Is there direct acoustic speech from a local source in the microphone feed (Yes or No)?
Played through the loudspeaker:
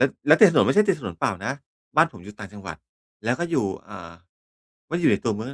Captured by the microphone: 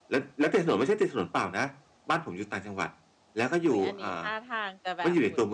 Yes